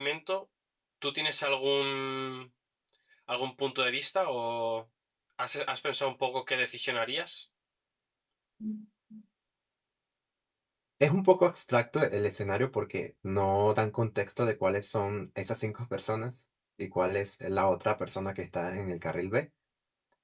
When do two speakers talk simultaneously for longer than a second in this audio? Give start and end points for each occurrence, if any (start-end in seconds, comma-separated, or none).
none